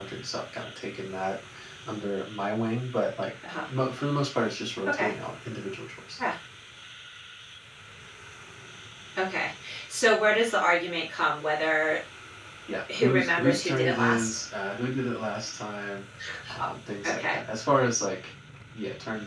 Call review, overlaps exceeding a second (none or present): present